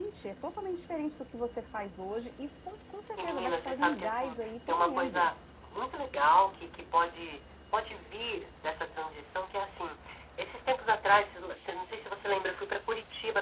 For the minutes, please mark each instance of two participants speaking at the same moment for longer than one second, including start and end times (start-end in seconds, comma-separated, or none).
3.2-5.3